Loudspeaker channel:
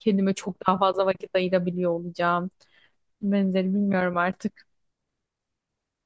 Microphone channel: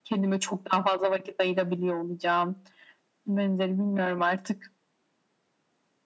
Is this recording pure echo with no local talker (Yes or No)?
Yes